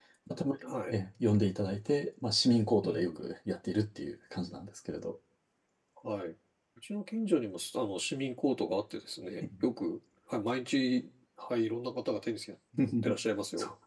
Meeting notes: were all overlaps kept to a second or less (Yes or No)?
Yes